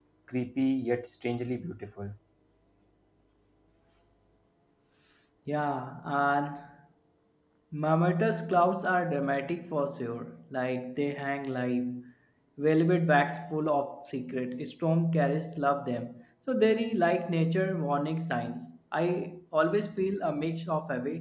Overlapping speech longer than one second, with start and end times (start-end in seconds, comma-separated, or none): none